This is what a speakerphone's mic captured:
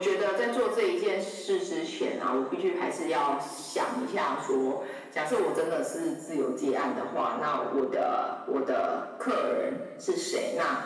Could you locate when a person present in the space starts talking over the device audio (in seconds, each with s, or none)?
none